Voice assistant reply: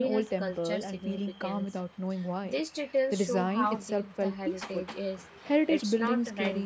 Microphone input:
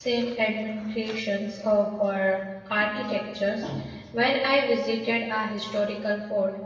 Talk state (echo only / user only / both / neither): user only